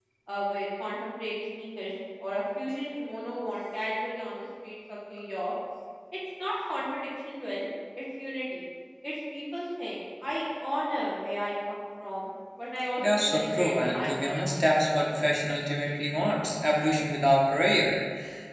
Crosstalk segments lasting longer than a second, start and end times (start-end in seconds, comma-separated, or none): 13.0-14.5